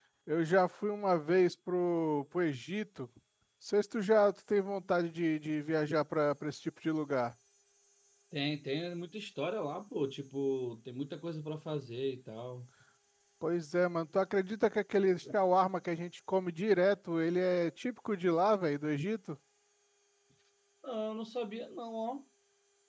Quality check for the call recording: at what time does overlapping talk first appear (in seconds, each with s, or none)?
none